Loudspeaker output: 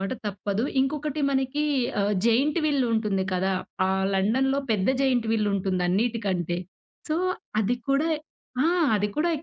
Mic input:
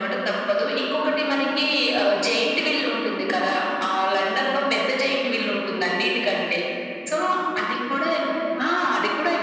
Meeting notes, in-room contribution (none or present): none